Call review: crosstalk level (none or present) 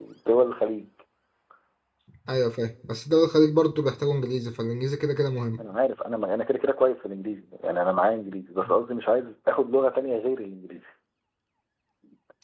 none